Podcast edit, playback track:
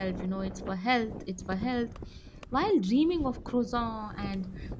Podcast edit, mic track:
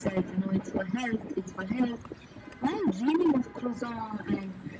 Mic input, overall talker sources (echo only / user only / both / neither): echo only